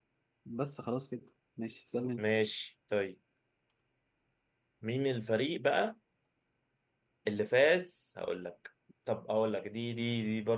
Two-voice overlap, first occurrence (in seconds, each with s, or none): none